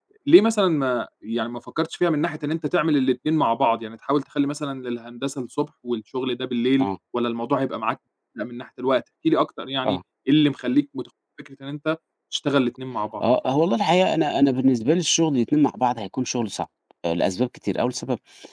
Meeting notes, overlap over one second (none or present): none